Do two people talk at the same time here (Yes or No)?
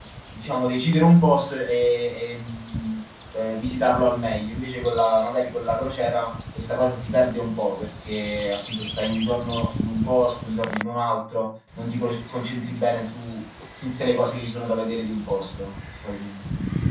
No